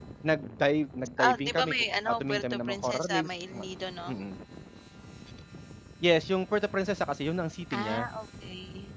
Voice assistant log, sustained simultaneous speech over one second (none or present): present